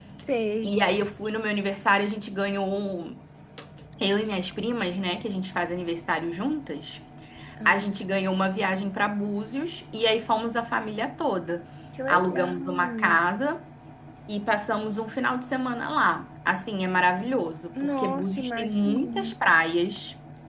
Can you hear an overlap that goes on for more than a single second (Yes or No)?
Yes